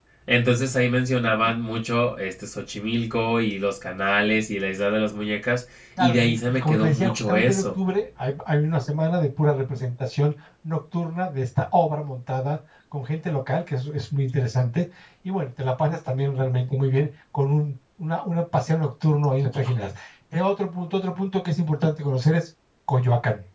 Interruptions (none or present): present